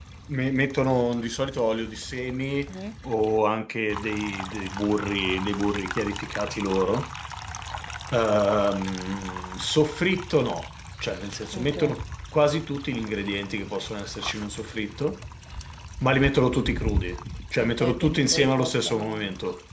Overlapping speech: Yes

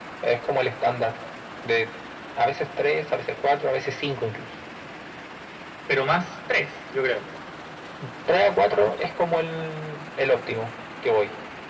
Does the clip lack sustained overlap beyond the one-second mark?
Yes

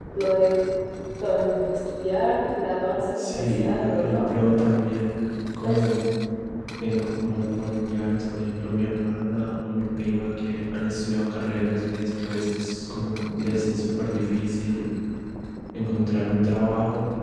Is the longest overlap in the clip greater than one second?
Yes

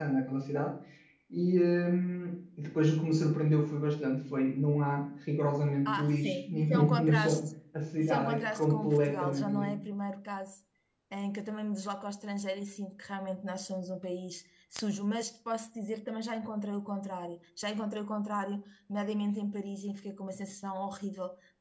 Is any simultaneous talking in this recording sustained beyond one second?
Yes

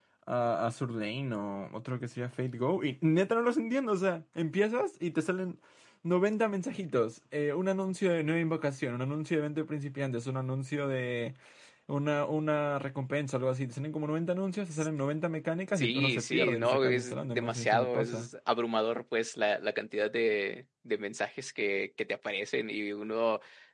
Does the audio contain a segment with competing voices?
Yes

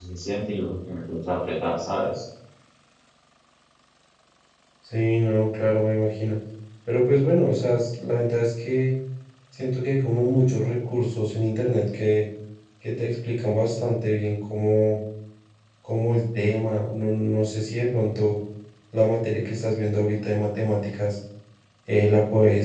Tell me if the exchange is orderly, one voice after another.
Yes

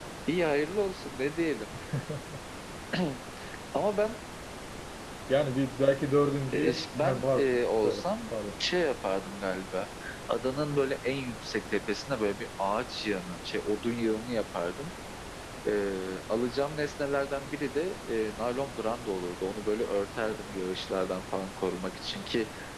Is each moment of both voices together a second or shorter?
No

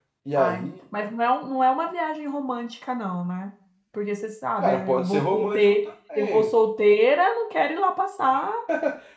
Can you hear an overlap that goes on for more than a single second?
Yes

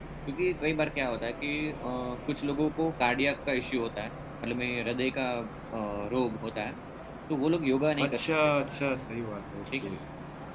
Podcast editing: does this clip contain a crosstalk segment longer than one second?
No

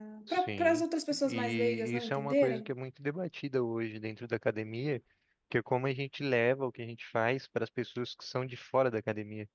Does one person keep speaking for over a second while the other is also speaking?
Yes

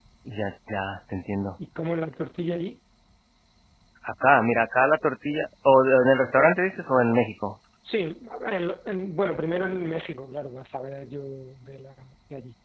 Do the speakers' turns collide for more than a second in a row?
No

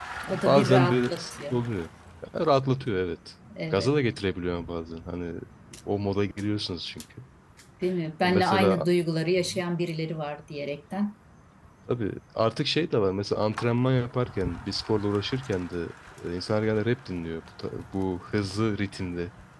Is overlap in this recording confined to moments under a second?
No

